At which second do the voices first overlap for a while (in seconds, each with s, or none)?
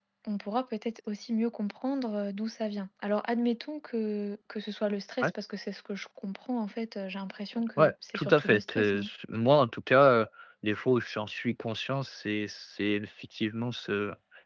7.8 s